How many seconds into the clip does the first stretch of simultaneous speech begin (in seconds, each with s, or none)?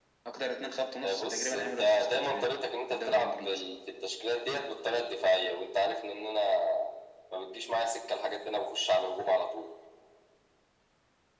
1.0 s